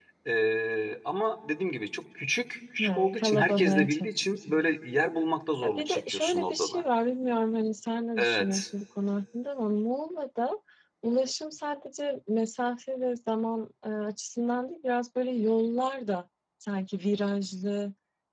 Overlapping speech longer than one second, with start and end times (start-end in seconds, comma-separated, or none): 2.8-4.8, 5.6-6.8